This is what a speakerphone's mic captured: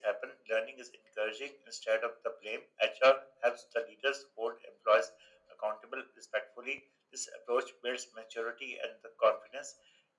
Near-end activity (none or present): none